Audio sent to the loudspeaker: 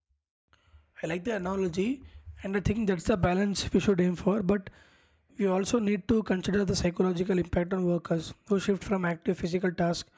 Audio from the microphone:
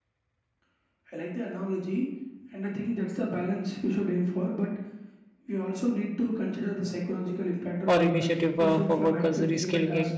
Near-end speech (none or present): present